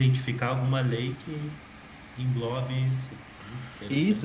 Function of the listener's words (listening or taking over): taking over